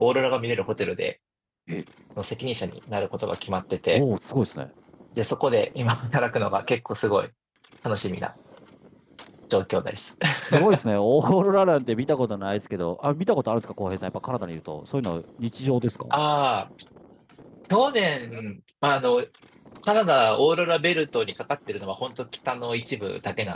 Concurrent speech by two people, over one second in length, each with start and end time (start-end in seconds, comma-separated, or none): none